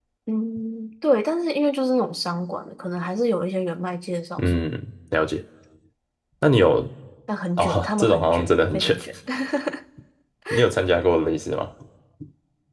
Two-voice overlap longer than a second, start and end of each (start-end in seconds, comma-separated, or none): 7.6-9.0